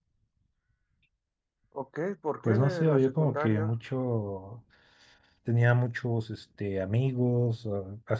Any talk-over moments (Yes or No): Yes